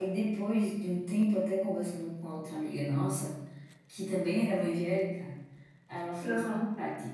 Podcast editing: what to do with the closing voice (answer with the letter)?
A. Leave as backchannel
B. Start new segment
A